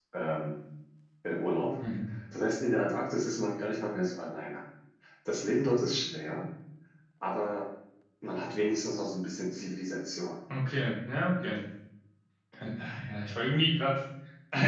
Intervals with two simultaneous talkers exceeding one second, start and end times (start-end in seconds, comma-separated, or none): none